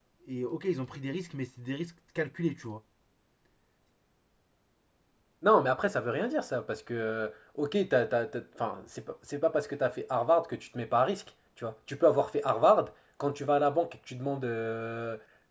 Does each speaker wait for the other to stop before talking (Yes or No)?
Yes